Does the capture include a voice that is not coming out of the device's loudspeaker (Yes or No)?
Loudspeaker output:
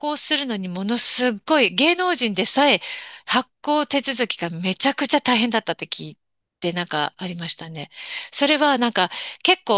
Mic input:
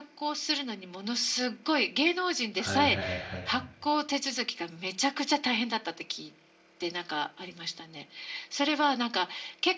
Yes